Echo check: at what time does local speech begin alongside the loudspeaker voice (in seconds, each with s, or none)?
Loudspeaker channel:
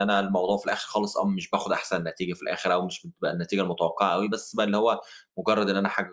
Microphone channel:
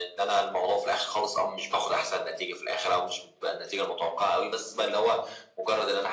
none